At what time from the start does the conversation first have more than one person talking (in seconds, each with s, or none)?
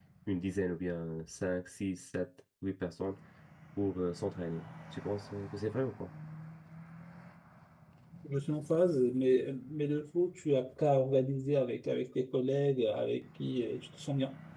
none